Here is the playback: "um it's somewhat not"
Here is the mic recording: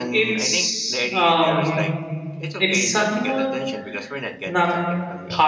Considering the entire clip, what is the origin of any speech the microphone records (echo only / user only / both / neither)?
both